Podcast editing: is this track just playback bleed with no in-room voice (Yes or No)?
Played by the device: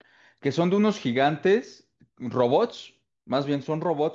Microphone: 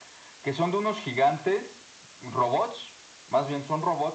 Yes